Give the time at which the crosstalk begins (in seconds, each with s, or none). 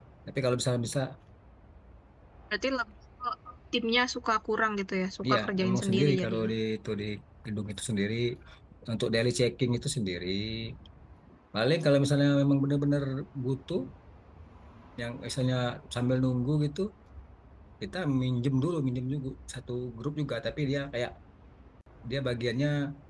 5.2 s